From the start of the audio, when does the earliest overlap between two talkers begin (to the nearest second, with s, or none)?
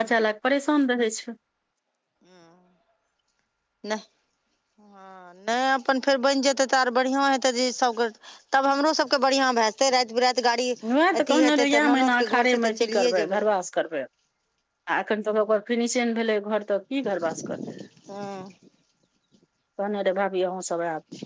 11 s